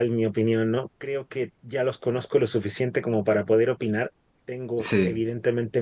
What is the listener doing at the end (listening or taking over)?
listening